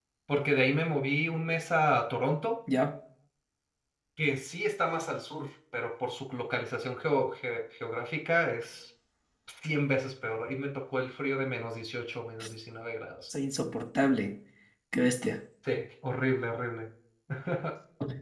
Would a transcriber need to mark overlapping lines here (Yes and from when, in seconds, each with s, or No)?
No